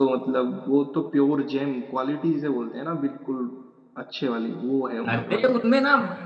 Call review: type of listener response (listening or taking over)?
taking over